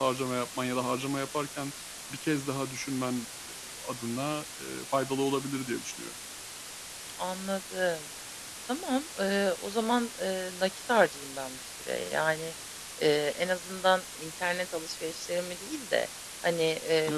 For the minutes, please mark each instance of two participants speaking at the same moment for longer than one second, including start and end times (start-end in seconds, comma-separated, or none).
none